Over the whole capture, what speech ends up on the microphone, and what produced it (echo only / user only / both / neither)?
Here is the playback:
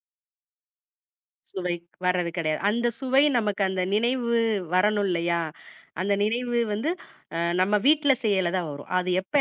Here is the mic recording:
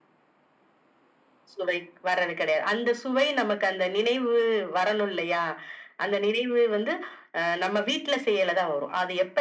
echo only